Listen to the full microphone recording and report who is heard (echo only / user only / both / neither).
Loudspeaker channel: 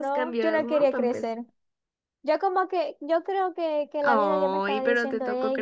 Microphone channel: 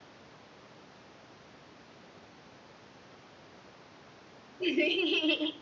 user only